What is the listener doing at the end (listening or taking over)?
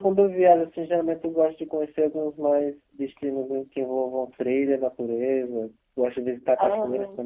listening